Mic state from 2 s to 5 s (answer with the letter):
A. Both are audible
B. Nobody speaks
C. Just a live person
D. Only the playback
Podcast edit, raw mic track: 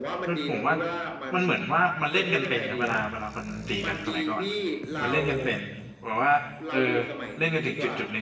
A